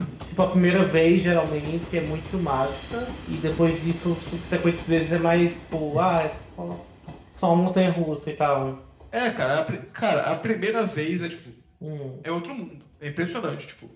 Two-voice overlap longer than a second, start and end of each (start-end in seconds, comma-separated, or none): none